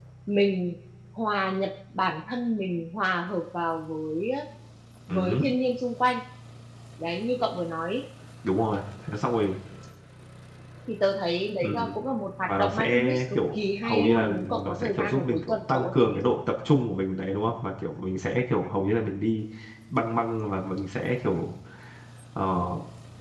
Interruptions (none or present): present